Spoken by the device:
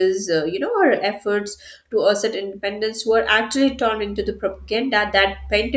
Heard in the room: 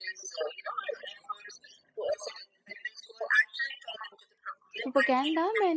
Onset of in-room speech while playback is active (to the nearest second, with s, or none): 5 s